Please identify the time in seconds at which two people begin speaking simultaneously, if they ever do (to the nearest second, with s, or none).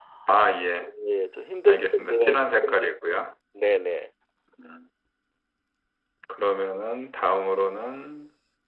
2 s